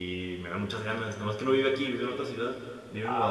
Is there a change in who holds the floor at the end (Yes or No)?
No